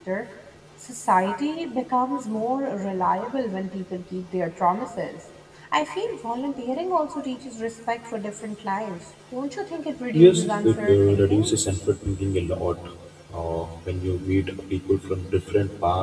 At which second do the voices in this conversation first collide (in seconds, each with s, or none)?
10.1 s